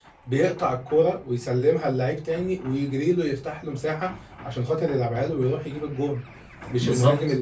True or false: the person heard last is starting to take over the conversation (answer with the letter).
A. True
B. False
B